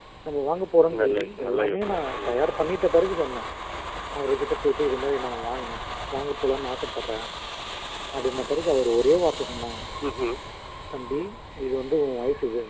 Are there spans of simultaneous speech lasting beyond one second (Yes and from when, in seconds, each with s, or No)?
Yes, from 1.0 s